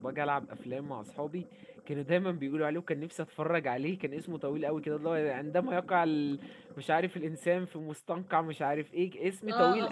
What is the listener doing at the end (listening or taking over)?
taking over